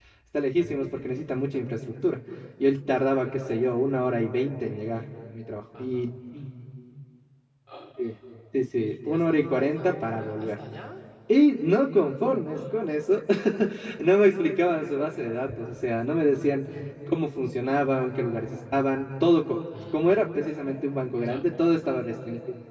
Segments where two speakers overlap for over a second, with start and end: 8.8-10.5

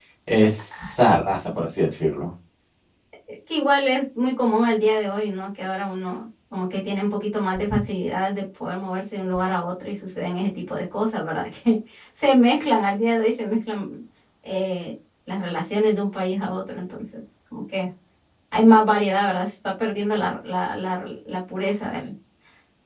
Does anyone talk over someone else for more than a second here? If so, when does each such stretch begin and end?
none

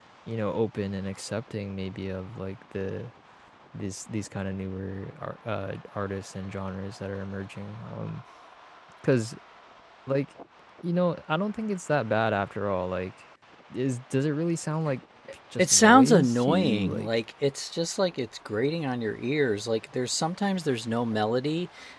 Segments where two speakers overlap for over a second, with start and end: 15.6-17.1

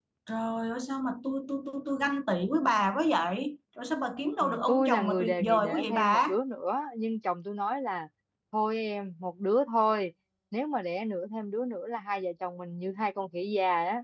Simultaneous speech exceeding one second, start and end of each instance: 4.2-6.2

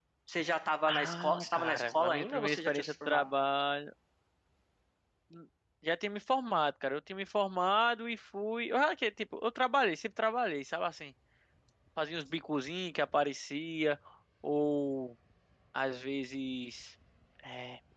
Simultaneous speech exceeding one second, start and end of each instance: 0.9-3.2

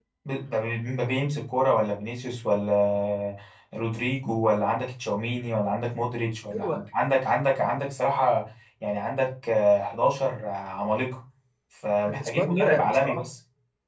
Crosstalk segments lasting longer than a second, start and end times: 12.1-13.3

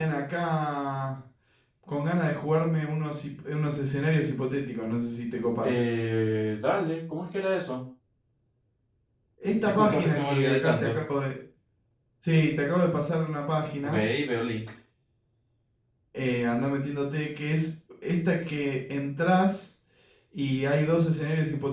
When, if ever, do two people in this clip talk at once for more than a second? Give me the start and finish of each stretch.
9.6-11.0

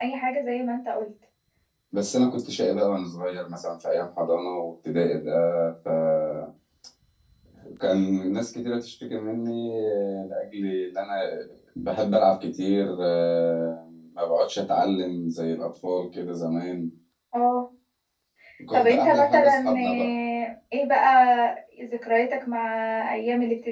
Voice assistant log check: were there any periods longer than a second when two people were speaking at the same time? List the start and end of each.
18.7-20.1

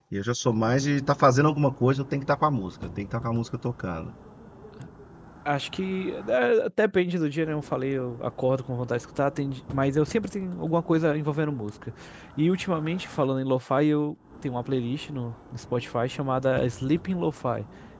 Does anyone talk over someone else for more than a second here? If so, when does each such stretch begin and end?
none

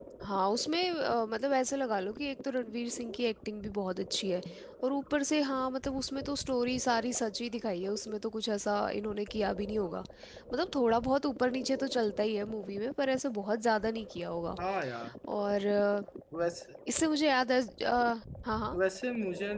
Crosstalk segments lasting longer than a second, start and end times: none

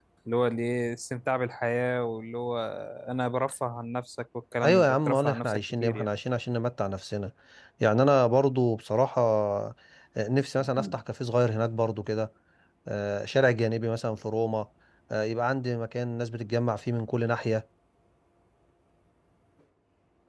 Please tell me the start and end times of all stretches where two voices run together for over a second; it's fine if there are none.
4.6-6.1

